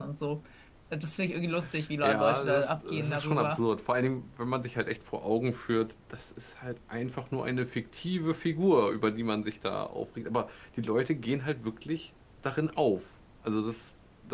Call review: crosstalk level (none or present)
present